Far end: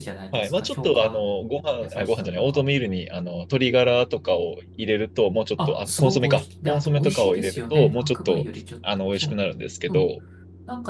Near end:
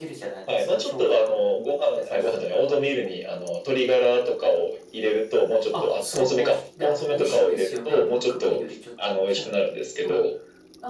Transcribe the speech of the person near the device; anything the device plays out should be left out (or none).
none